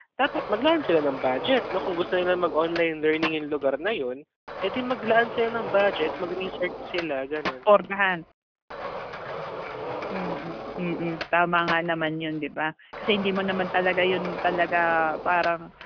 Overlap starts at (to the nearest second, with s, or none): none